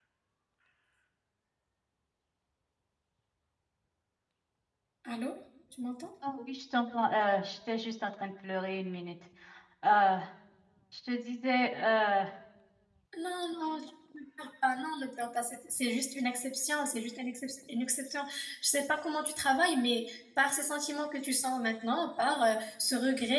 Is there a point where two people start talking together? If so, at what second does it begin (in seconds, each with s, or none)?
none